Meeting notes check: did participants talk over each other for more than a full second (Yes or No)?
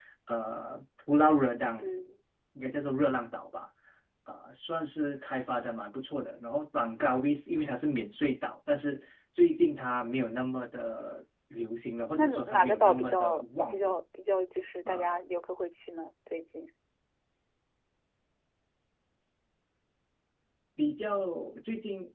Yes